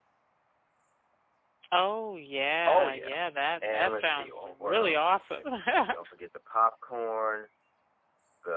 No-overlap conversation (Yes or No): No